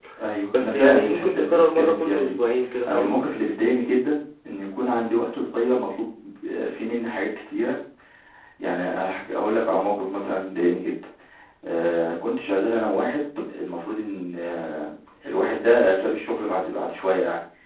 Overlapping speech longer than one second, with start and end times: 0.5-2.4

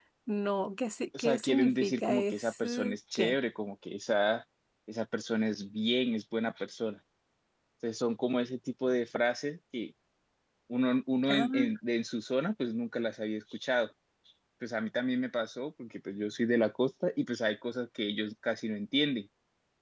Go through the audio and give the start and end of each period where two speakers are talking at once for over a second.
1.2-3.4

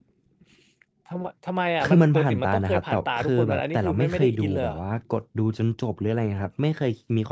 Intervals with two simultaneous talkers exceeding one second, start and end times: 1.8-4.8

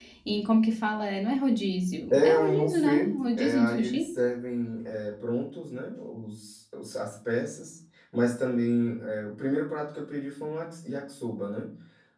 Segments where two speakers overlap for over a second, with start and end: 2.1-4.1

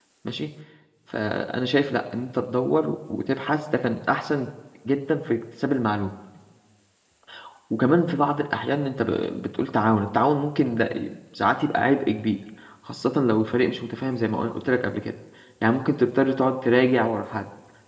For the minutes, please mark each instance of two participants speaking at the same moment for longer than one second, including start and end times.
none

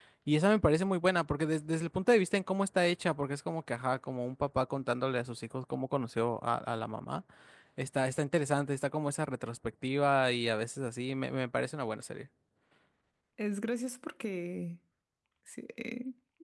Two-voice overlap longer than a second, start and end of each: none

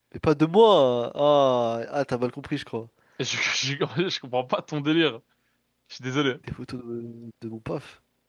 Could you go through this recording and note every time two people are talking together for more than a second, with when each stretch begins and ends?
none

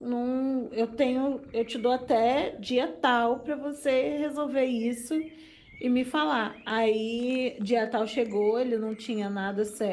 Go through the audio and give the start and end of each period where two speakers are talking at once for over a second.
none

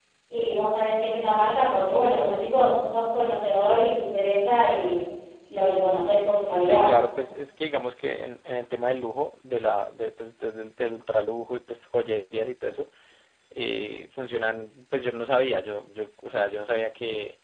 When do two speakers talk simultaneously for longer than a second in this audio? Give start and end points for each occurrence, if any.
none

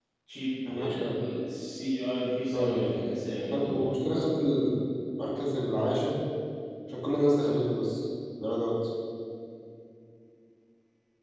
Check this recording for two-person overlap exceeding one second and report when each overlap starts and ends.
2.5-3.9

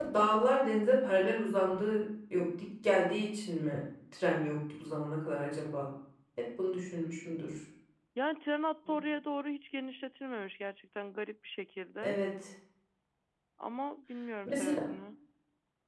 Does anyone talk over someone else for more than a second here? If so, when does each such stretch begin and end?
none

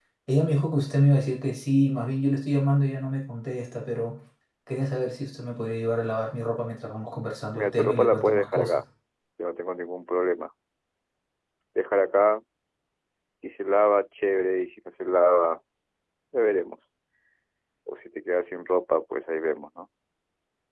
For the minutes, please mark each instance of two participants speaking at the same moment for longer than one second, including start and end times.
7.5-8.8

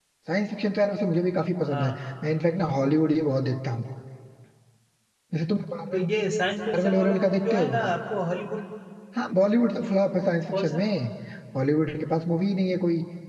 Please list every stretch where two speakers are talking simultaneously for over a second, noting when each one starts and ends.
6.7-7.9

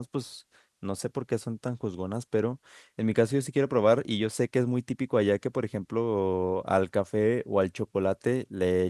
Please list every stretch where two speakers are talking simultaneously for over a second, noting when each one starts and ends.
none

